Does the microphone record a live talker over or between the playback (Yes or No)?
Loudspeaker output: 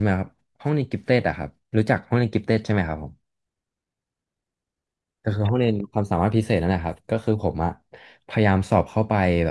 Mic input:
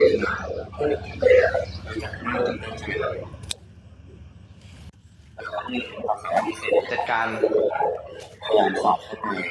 Yes